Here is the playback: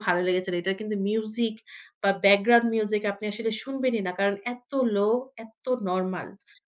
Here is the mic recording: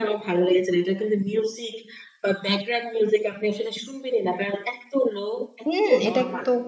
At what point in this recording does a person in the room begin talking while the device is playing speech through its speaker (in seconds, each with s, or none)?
5.7 s